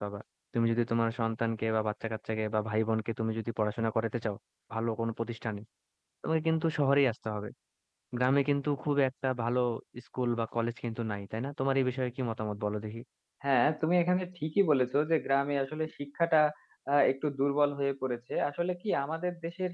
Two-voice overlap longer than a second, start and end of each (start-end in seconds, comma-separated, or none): none